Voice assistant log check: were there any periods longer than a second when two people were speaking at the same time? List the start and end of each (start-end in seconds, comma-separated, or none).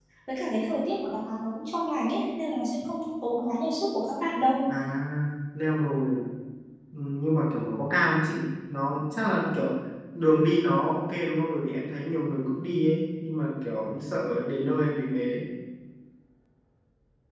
none